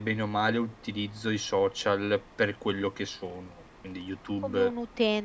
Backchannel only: No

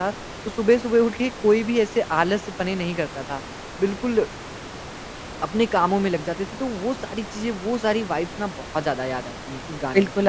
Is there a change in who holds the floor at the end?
Yes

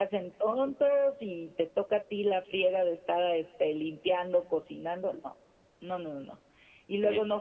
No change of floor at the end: Yes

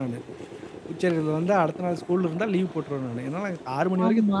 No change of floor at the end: No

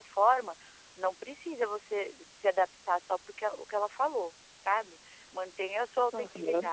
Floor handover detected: No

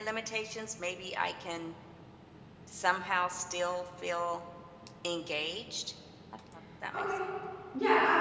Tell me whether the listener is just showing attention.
No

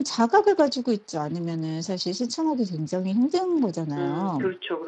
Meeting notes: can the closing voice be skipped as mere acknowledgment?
No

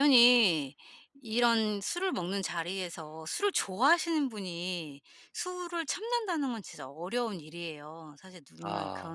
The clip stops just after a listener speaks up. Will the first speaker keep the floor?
Yes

